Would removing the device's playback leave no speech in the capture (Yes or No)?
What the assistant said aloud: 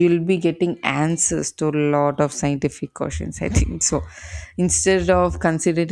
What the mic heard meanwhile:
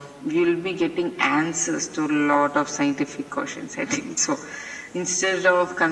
Yes